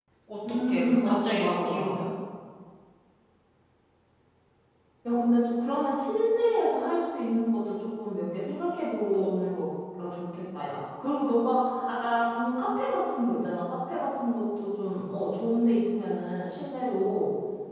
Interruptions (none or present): present